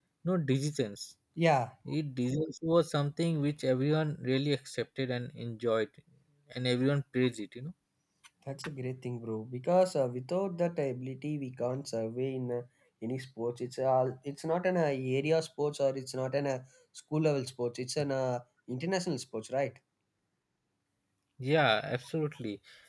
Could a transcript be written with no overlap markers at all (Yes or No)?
Yes